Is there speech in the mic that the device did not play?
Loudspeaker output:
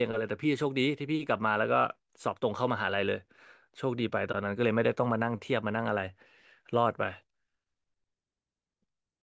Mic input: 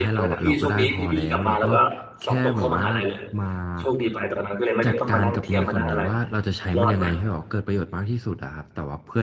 Yes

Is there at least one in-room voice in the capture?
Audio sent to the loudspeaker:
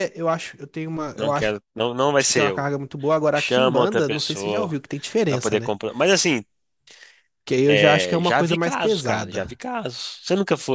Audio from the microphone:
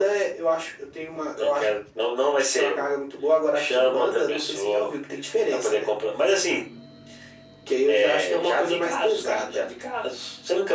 No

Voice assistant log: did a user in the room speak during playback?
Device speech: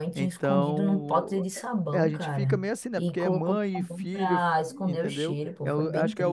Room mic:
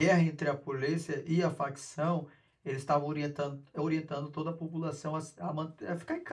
Yes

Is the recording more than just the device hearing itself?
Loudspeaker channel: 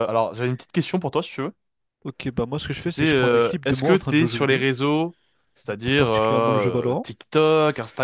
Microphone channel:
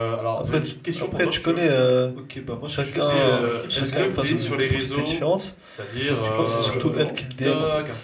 Yes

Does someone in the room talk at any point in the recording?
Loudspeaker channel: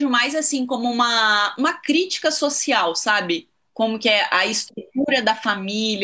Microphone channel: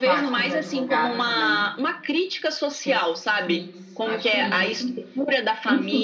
Yes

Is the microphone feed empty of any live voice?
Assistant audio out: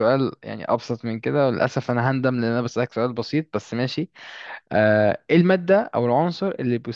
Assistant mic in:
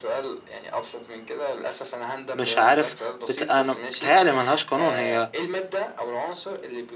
No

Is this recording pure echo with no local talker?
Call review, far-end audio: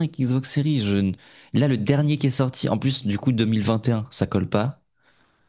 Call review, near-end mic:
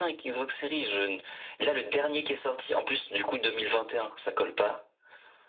Yes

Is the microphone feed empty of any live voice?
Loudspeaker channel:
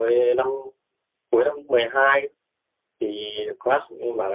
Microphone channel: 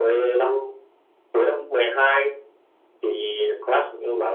Yes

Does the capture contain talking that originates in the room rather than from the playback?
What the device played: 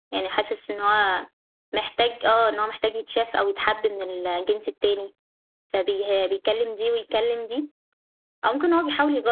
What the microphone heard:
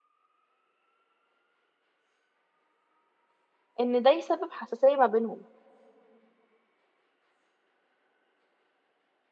Yes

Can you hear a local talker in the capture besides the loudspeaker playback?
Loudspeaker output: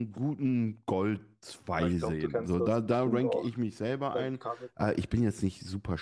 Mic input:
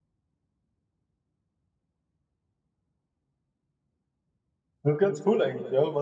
Yes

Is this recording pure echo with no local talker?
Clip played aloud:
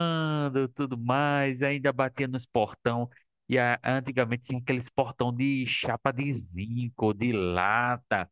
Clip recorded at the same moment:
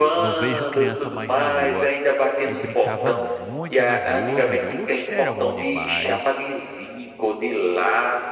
No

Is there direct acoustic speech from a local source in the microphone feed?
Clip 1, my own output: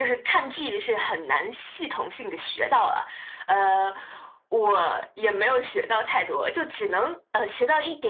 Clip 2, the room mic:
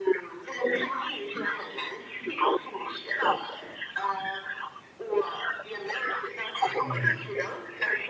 Yes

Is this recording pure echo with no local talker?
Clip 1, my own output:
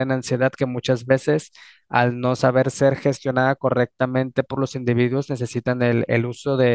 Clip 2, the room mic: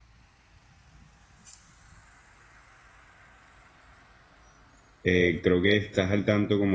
No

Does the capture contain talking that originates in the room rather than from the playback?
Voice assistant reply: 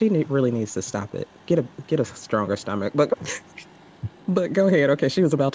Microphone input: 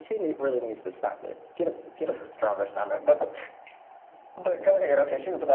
No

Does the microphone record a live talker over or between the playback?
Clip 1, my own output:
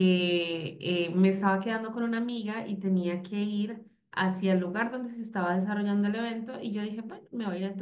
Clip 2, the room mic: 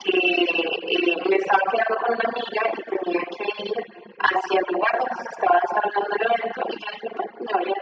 No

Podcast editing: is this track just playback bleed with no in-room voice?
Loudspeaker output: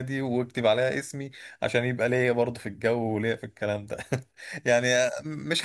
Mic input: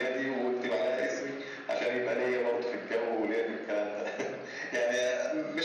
Yes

